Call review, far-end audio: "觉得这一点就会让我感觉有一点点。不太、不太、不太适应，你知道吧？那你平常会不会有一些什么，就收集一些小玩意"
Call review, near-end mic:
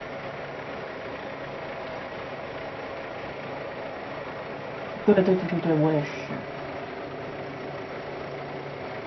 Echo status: none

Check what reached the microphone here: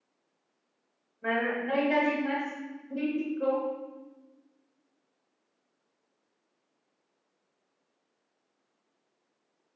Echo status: none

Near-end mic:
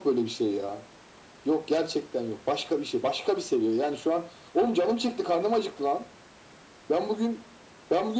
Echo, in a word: present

